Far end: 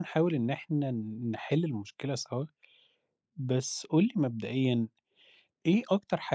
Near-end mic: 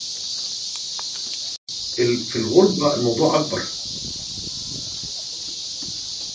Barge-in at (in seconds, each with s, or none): 2.0 s